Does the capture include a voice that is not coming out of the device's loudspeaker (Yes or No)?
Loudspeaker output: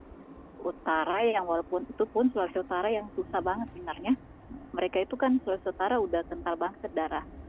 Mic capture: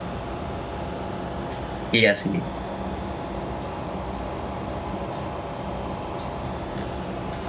Yes